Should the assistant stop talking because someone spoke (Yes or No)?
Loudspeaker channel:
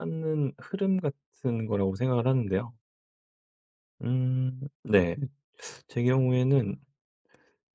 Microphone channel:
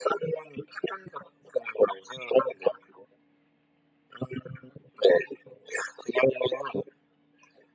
No